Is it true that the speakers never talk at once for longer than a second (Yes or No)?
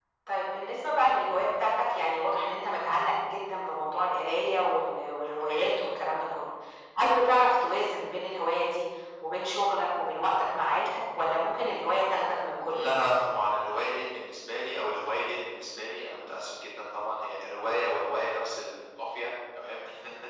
Yes